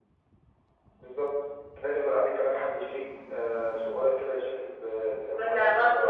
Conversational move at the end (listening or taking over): taking over